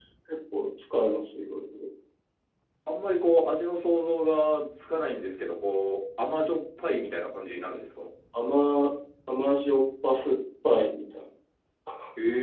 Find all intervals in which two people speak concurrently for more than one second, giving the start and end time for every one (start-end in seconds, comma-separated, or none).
none